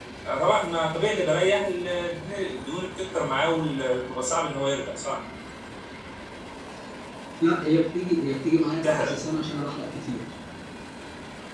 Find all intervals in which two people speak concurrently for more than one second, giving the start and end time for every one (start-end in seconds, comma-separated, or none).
none